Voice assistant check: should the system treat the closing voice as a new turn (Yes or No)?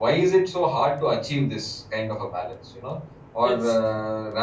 No